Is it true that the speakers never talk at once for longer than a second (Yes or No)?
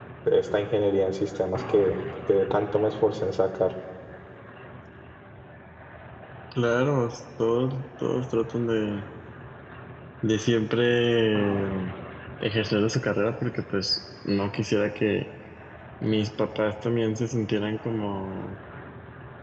Yes